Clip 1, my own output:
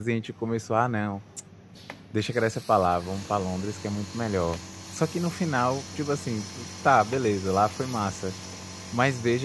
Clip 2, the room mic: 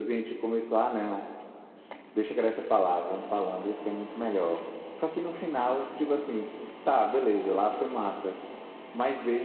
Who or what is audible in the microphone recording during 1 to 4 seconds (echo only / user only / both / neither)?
echo only